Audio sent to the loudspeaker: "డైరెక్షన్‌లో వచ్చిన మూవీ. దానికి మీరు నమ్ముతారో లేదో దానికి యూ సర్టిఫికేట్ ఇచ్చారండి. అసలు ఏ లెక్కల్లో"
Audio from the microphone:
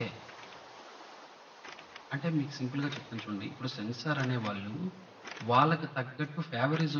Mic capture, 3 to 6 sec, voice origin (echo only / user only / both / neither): user only